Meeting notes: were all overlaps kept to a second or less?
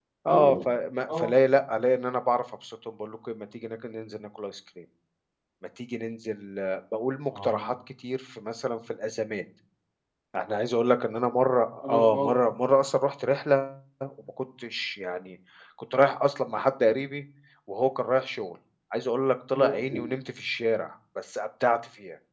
Yes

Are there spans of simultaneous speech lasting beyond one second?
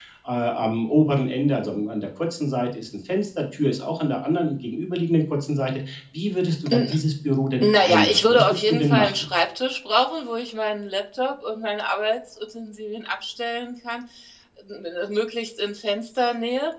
Yes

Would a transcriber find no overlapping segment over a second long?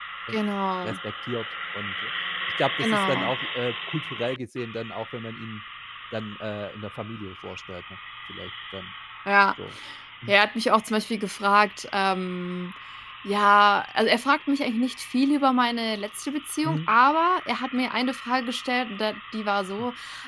Yes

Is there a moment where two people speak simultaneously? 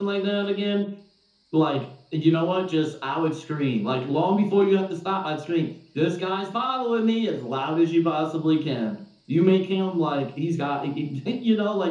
No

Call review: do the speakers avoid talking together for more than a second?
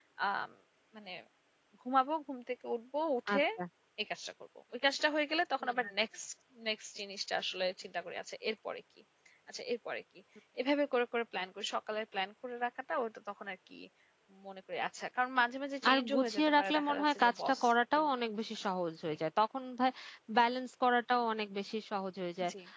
No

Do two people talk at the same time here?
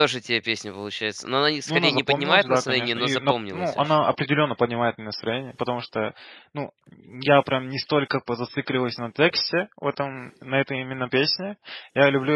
Yes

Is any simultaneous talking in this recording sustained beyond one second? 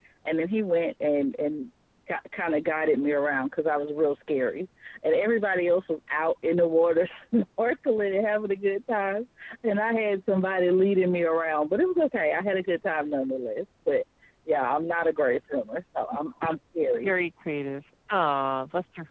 No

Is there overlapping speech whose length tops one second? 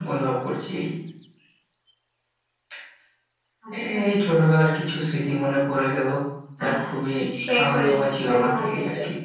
Yes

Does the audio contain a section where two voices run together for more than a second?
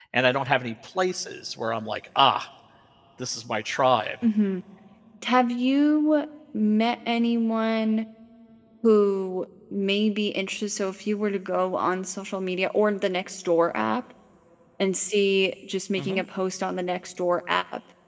No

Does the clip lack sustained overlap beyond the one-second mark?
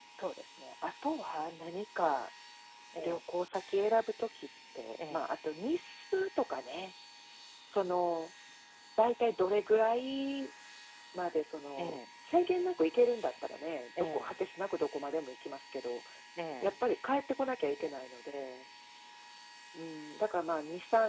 Yes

